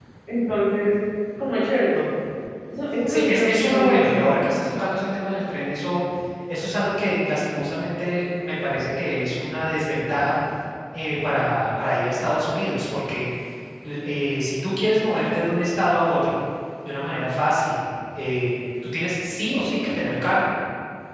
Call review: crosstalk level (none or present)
present